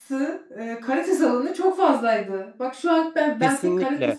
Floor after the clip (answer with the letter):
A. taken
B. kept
A